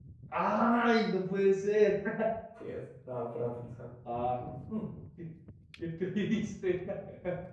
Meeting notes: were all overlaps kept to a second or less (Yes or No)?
Yes